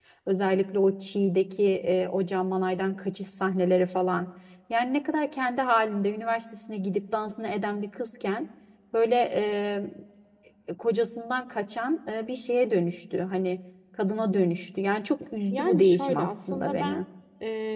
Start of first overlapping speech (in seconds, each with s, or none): 15.5 s